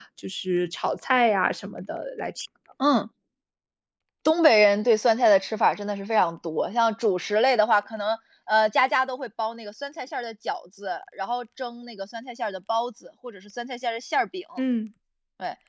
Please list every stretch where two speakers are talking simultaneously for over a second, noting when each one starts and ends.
none

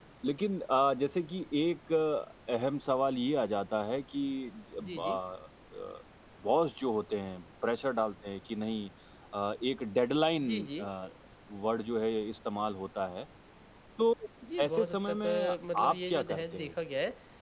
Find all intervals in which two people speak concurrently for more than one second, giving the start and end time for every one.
14.6-16.8

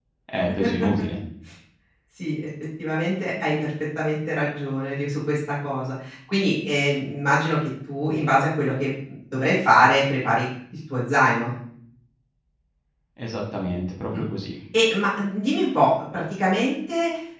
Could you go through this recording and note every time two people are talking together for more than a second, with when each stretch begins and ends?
none

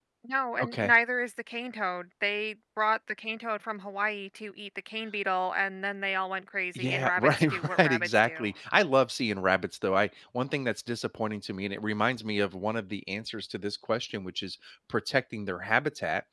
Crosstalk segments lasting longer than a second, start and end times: 6.8-8.5

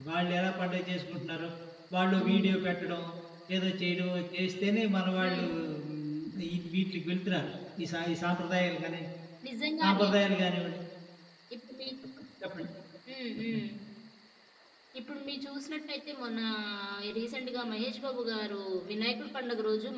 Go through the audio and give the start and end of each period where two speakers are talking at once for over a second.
none

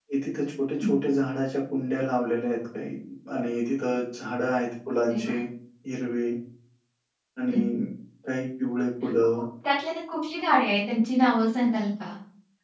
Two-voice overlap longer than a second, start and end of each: none

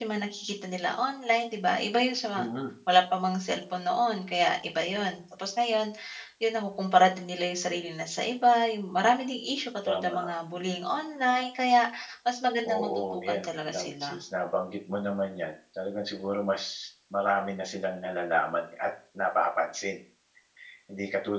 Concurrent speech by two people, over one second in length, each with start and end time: 12.7-14.2

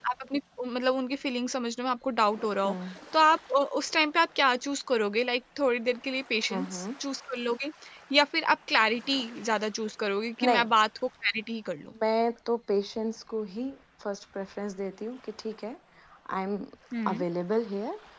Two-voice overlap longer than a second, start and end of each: none

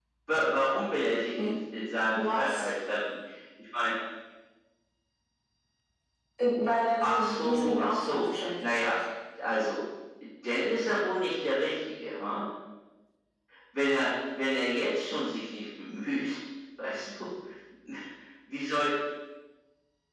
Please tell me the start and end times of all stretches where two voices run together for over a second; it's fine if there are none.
7.0-8.8

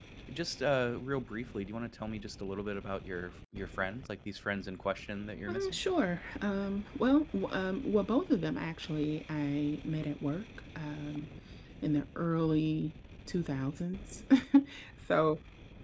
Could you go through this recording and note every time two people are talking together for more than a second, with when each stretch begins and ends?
none

